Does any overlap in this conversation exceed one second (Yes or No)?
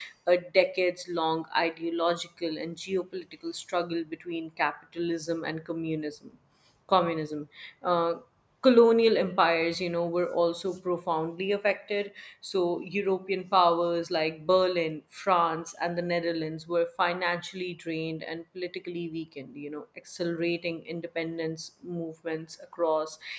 No